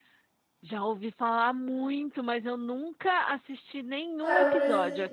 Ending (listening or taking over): taking over